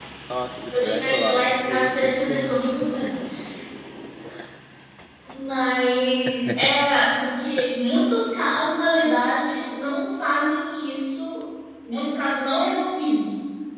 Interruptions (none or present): present